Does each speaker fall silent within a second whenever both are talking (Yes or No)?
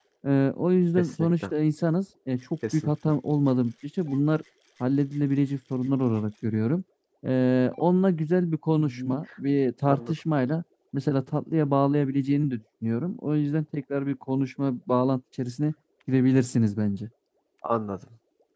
Yes